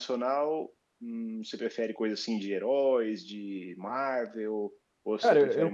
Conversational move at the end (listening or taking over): taking over